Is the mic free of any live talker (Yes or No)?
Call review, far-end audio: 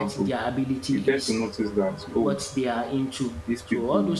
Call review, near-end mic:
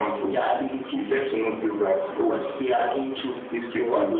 Yes